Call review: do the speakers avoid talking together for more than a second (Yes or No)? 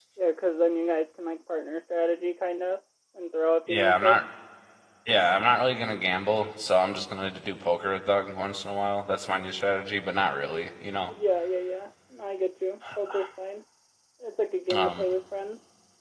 Yes